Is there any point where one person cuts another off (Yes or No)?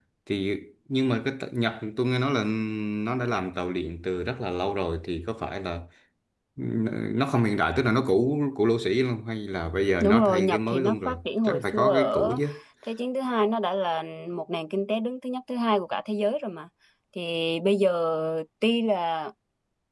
Yes